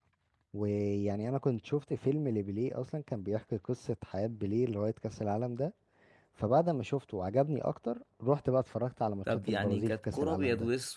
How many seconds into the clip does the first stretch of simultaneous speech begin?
9.3 s

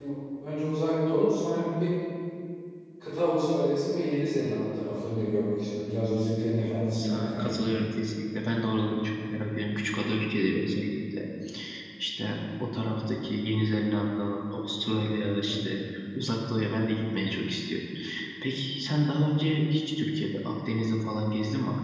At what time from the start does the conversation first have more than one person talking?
6.3 s

